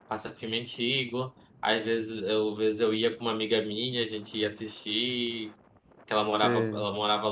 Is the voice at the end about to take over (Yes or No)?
No